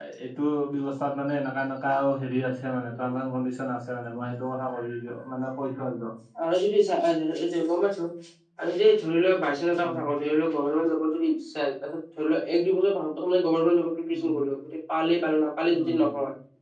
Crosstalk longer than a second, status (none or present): none